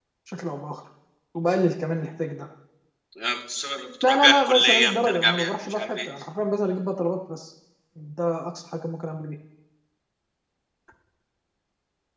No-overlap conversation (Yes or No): No